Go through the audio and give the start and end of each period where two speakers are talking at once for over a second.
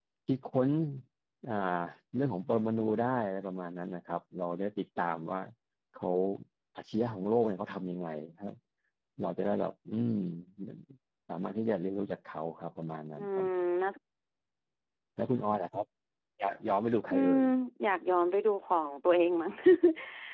none

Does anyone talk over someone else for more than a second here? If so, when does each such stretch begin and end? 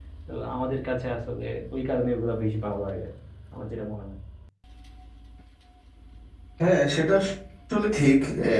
none

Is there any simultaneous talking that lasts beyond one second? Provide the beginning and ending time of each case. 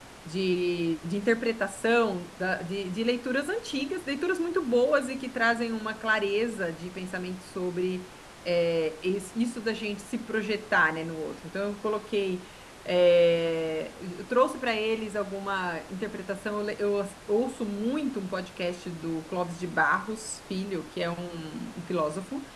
none

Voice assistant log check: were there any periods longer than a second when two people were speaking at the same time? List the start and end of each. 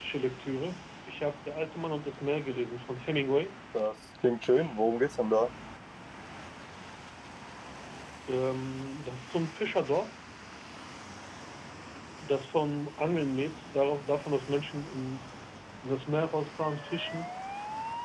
none

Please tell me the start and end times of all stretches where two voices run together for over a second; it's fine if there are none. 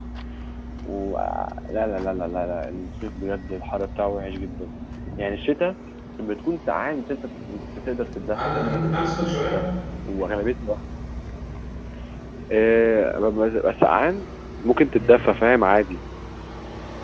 8.3-9.6

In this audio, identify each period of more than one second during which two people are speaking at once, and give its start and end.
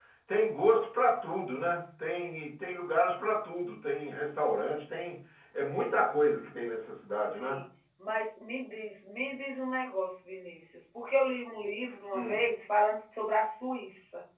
none

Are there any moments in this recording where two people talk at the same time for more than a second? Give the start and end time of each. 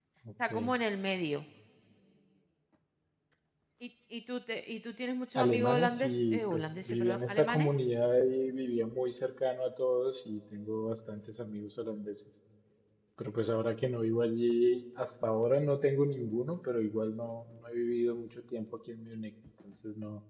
5.3-7.7

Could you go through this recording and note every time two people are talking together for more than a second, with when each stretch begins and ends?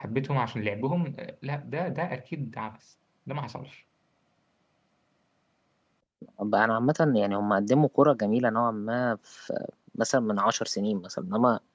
none

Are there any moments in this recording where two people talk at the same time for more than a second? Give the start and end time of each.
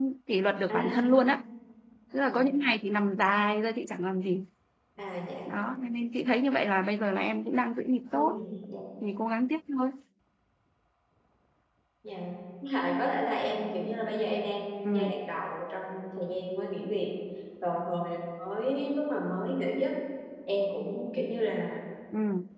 none

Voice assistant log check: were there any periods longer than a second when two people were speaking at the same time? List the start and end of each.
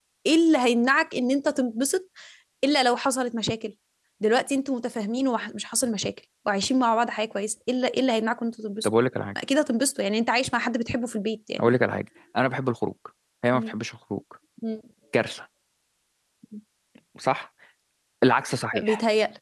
none

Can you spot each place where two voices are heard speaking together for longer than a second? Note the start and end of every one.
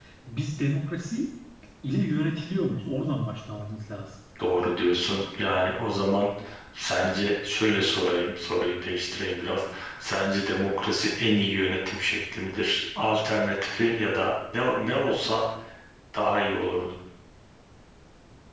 none

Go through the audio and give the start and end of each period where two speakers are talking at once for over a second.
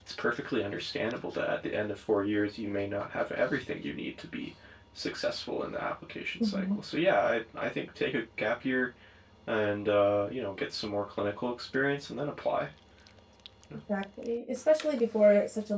none

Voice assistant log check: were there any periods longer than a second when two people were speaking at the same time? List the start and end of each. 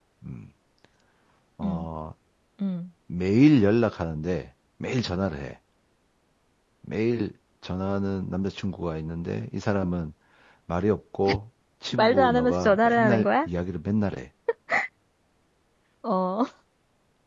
12.0-13.5

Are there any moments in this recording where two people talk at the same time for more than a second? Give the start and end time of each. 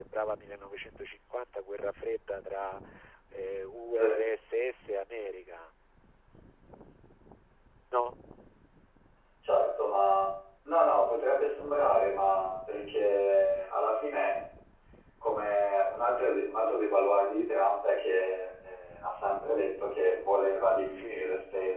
none

